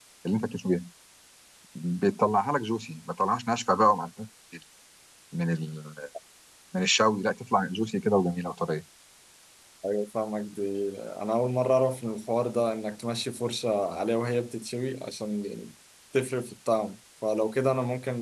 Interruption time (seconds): none

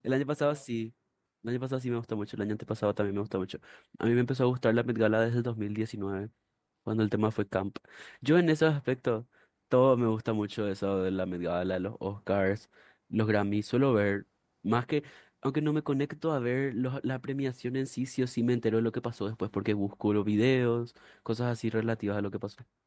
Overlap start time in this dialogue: none

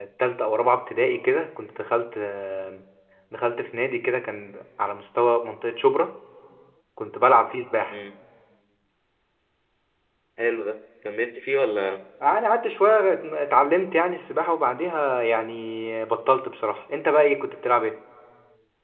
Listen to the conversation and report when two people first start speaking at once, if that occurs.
none

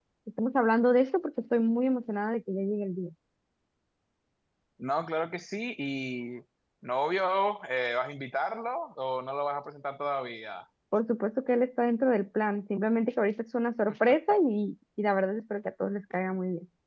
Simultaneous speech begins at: none

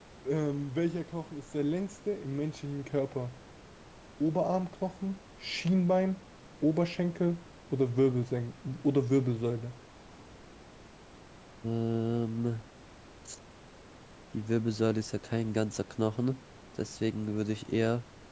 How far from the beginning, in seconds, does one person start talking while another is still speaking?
none

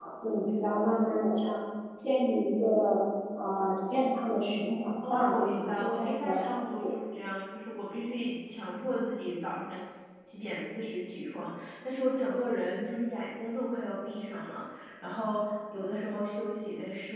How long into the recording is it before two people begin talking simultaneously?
5.0 s

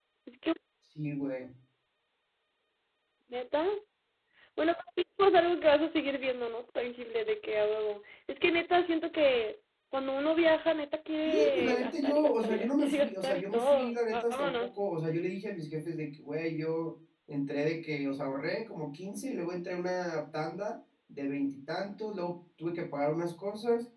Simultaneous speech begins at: 11.2 s

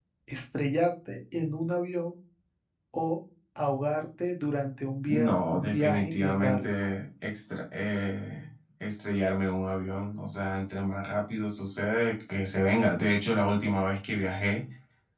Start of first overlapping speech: 5.1 s

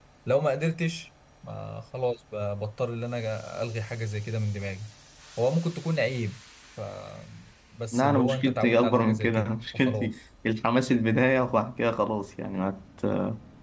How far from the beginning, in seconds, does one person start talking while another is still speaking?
7.9 s

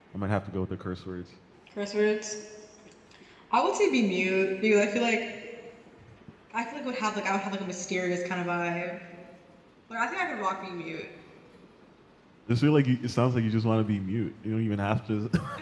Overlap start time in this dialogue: none

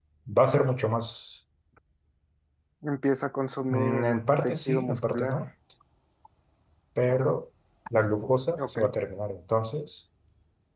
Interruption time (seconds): 3.7 s

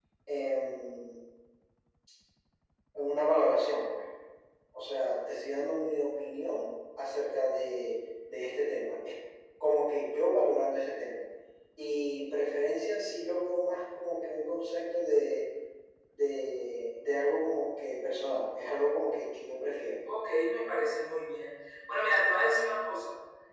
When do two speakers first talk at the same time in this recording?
none

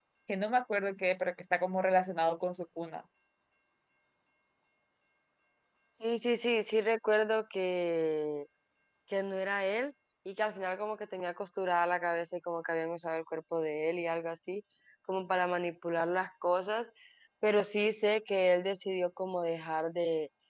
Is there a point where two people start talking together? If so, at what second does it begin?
none

